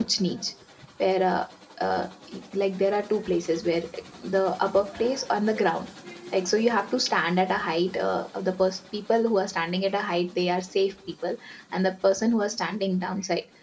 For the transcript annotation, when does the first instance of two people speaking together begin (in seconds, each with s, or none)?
none